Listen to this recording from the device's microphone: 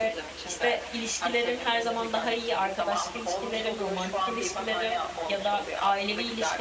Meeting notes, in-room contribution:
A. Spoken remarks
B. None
A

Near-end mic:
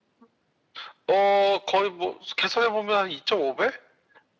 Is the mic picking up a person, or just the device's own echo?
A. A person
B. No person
B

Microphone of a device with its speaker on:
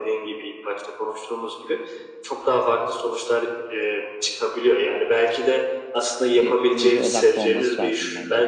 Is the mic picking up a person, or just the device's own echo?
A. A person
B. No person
A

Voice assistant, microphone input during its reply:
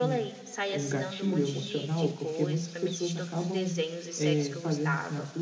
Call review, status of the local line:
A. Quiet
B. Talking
B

